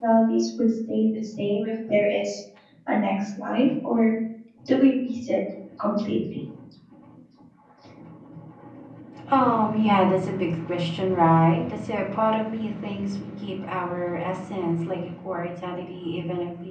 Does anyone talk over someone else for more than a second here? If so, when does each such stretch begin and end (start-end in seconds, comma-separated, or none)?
none